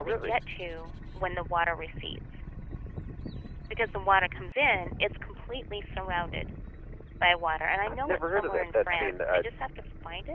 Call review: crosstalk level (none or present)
present